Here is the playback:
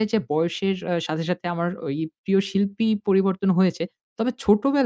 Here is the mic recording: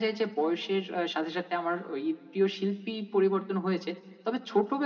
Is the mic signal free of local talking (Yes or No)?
Yes